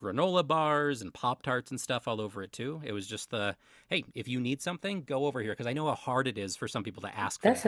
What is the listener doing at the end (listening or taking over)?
taking over